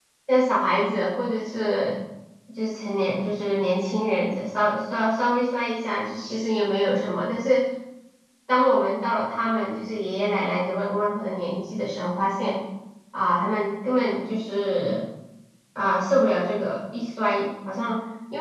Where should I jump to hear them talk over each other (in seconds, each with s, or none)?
none